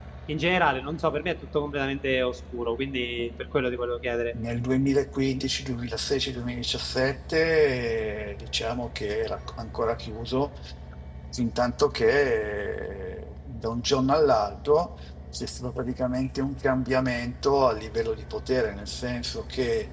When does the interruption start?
none

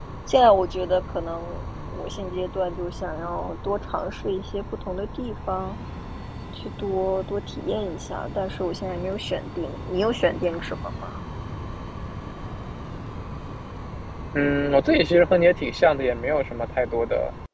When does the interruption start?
none

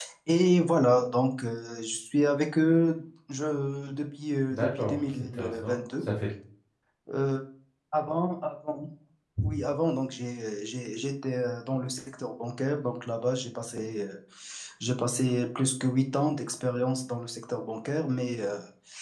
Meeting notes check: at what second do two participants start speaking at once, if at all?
4 s

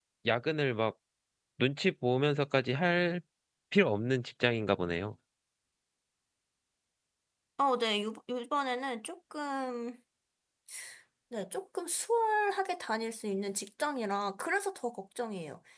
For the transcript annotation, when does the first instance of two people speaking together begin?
none

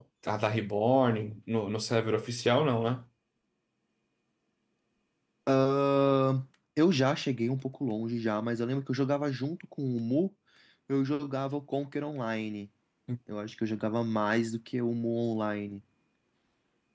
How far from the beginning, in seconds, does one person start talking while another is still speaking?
none

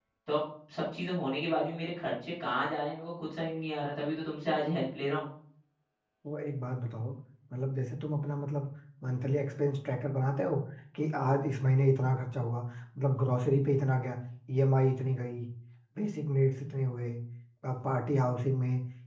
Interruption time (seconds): none

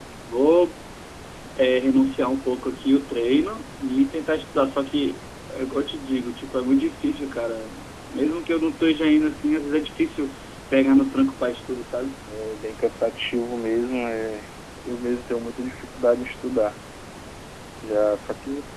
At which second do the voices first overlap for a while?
none

